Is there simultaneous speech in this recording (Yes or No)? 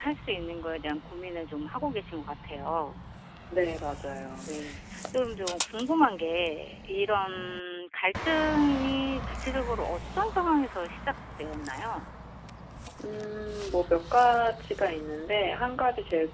No